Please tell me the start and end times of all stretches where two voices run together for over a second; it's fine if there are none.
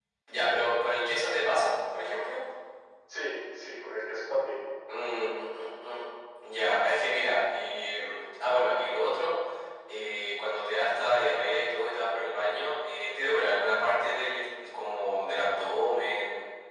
none

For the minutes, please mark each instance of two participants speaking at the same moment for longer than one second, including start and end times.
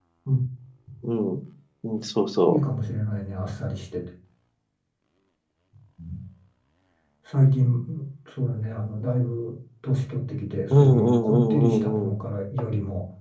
10.8-12.1

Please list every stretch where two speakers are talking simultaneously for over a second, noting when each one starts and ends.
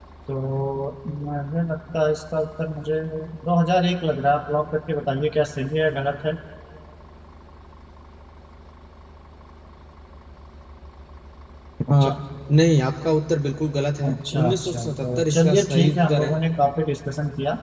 14.0-16.4

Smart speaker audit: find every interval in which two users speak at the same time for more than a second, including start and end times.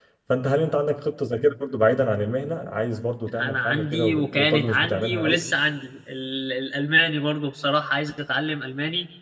3.4-5.5

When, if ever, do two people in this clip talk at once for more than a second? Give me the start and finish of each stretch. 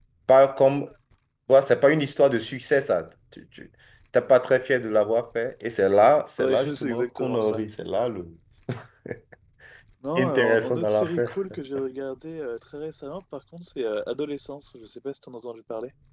6.4-7.6, 10.2-11.4

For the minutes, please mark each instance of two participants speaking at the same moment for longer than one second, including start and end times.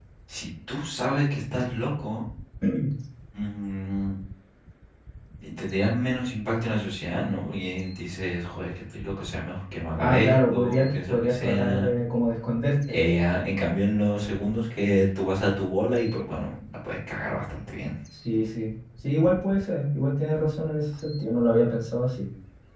10.0-11.9

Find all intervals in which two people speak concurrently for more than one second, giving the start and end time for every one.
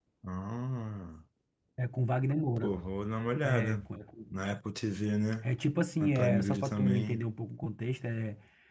6.0-7.2

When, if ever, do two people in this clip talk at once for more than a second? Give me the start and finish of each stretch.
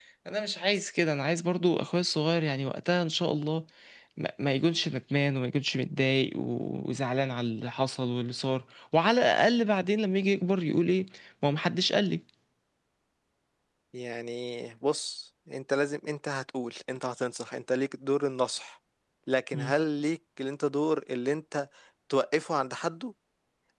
none

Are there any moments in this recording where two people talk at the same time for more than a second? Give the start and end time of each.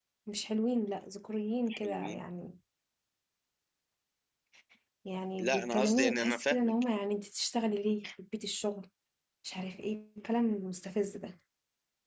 5.4-6.7

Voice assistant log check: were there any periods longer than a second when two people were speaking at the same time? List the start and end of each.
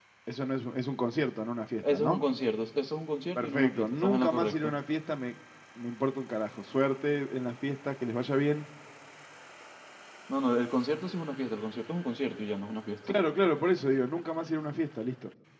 3.4-4.7

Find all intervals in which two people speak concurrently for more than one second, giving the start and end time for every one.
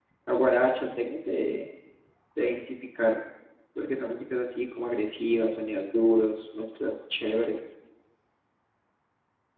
none

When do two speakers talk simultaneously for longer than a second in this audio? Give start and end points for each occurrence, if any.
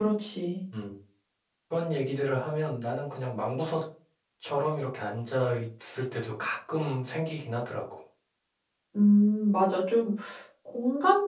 none

